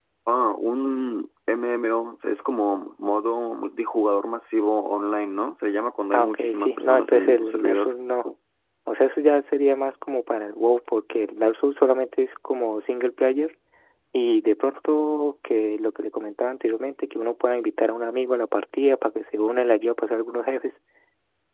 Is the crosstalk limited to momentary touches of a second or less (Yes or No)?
No